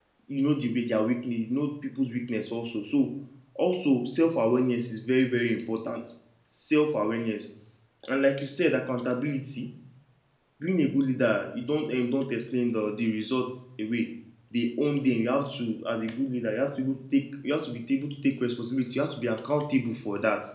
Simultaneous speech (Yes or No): No